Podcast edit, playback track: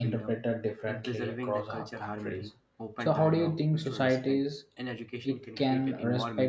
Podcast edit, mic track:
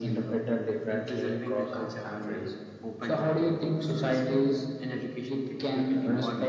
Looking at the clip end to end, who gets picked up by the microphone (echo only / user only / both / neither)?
echo only